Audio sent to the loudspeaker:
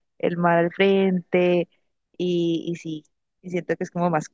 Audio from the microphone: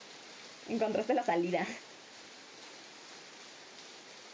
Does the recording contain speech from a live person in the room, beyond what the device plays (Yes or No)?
Yes